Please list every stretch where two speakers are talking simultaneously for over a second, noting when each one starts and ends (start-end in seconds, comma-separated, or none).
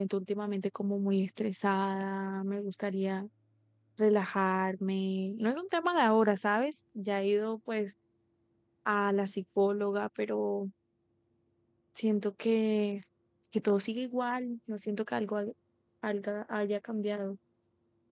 none